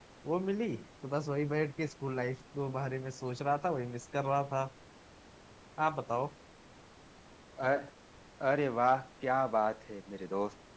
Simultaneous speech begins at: none

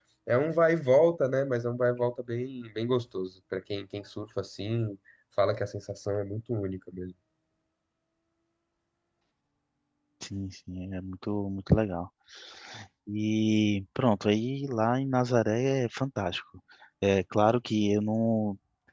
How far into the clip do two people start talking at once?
none

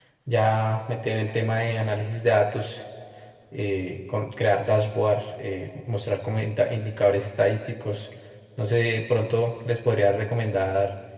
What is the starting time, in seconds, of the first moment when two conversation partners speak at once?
none

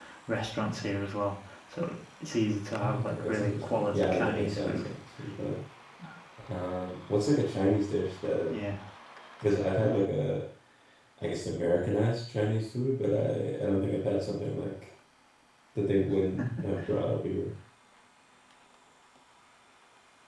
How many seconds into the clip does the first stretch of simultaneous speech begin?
2.8 s

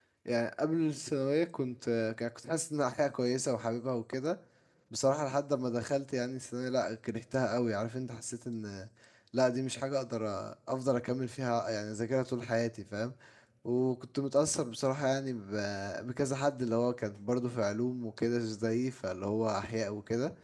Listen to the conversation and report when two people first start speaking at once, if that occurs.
none

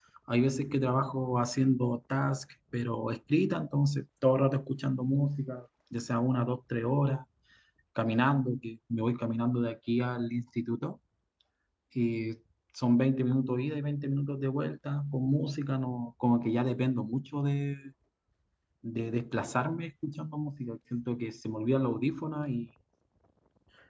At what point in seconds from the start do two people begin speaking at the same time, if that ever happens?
none

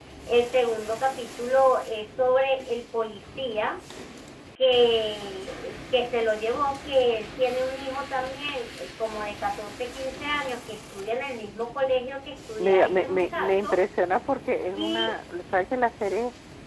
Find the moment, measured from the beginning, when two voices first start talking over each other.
12.6 s

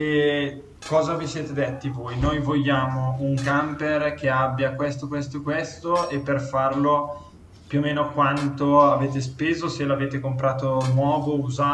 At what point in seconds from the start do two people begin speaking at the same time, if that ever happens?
none

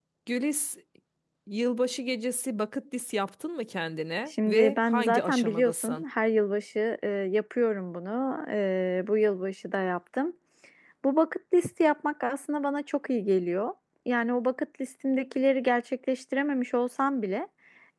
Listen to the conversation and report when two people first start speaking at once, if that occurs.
4.3 s

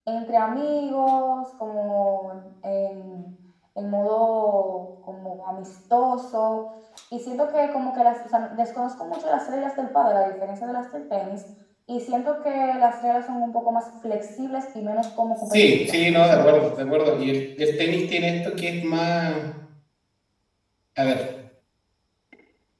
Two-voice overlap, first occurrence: 15.4 s

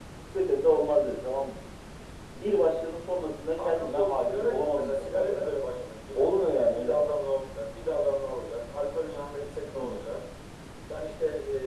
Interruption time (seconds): 3.6 s

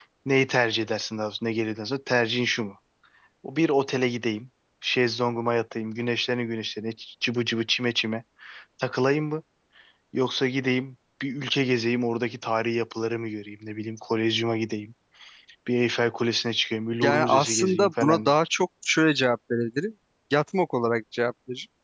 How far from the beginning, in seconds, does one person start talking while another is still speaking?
17.0 s

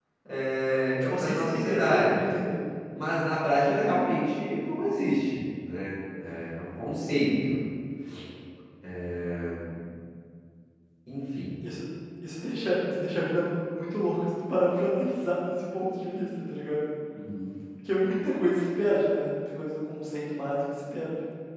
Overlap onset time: 0.9 s

